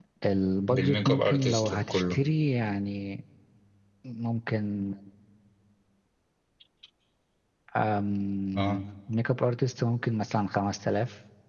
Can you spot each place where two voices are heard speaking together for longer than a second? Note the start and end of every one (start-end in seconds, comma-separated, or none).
0.7-2.2